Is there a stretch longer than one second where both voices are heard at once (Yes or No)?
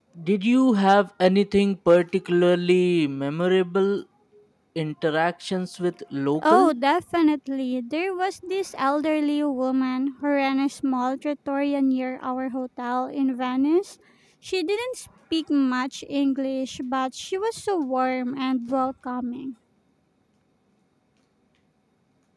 No